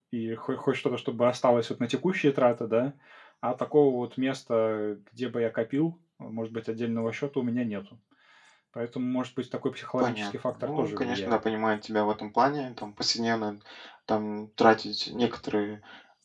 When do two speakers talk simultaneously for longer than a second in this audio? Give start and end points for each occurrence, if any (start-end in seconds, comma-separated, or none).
10.0-11.4